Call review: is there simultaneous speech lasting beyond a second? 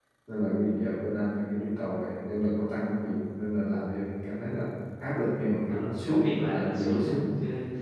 Yes, from 5.7 s

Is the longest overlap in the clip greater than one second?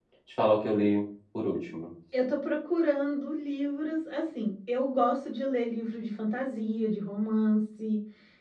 No

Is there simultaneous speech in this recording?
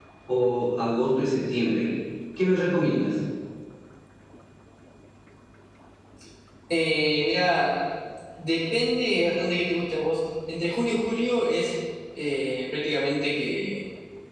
No

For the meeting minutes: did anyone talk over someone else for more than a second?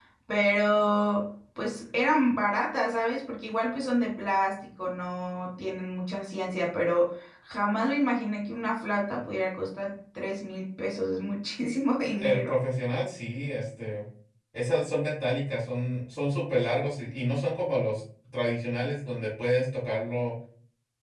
No

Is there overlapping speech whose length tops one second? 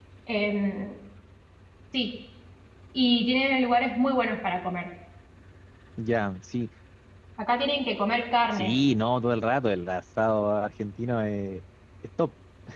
No

